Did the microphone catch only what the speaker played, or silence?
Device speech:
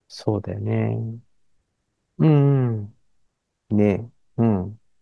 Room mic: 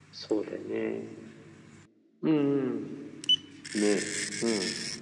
Yes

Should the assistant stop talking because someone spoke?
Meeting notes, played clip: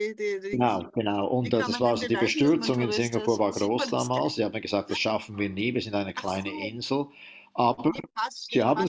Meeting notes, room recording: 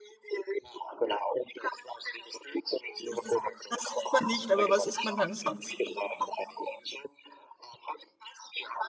Yes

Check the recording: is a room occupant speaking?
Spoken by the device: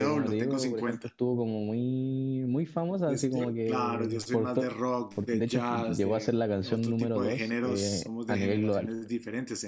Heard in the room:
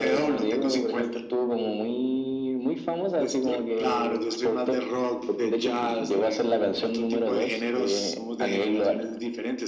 No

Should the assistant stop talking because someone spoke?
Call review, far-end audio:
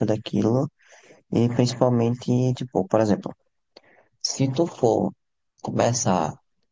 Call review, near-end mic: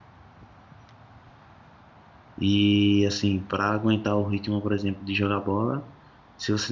Yes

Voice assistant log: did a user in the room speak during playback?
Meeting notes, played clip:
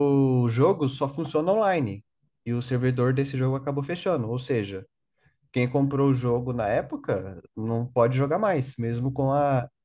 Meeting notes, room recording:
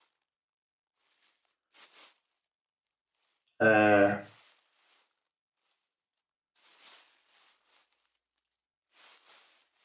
Yes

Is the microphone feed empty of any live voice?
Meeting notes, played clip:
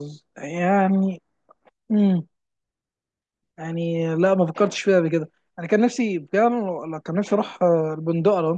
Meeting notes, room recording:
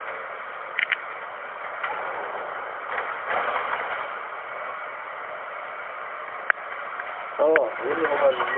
No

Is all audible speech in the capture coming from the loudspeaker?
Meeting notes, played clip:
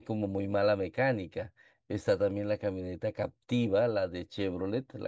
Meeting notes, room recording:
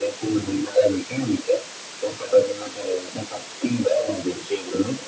Yes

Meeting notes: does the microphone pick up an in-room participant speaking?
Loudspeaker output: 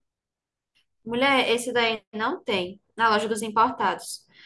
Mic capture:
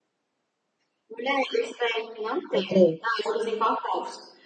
Yes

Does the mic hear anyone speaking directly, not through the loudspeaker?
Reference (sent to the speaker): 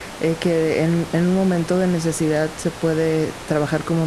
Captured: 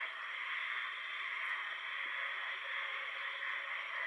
No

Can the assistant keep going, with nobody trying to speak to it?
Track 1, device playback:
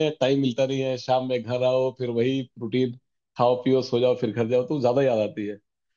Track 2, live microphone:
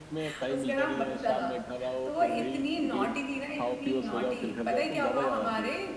No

